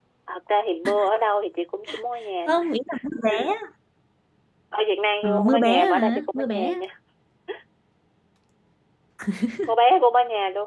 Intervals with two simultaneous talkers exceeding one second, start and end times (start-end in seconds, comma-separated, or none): 5.2-6.8